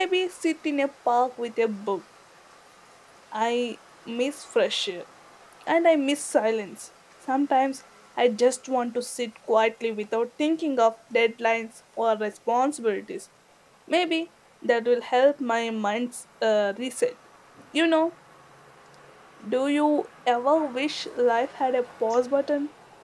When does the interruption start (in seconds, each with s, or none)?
none